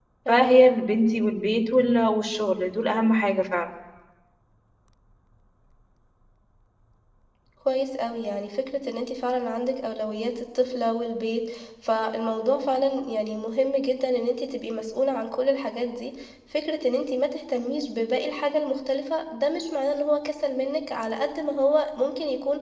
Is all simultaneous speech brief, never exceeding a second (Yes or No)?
Yes